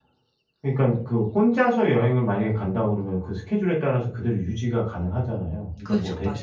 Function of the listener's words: listening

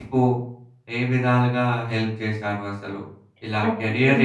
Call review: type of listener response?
listening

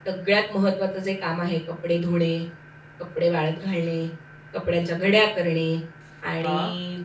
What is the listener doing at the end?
listening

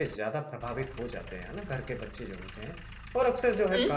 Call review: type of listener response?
listening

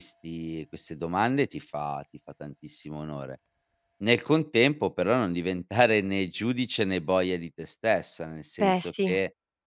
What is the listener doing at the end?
listening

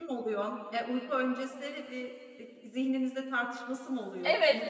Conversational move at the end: taking over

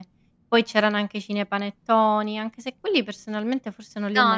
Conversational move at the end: taking over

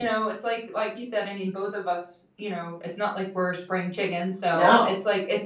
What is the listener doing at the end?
listening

